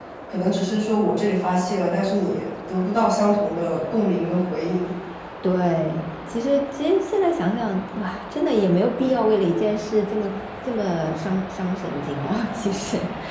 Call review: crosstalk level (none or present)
none